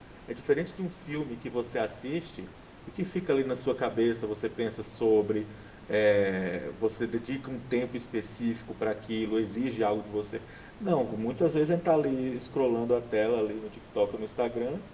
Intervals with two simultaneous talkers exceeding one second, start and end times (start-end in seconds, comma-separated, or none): none